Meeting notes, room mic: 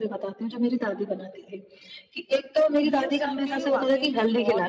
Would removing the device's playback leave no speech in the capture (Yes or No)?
No